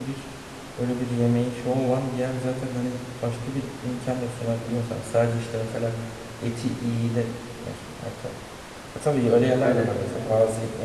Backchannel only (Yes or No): Yes